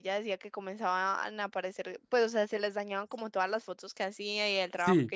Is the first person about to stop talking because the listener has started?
Yes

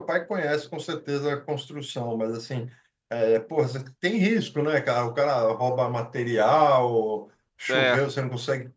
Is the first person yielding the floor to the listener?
No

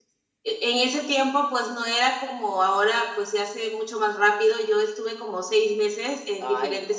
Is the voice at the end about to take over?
No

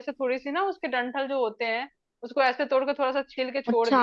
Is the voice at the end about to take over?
No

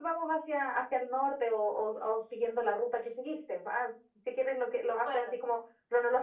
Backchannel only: Yes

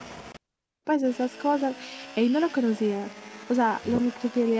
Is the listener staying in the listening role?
Yes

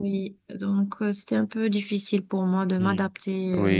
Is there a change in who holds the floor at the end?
Yes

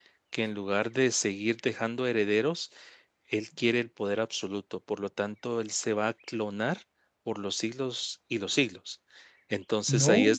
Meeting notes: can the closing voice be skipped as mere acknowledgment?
Yes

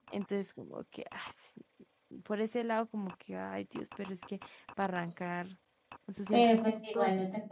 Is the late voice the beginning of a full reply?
Yes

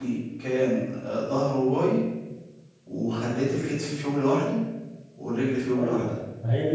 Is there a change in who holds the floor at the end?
Yes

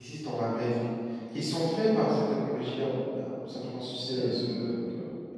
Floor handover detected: Yes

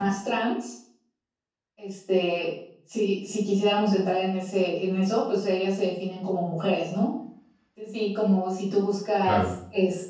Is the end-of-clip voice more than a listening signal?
No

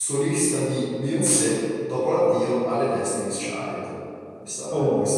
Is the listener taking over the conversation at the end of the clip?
Yes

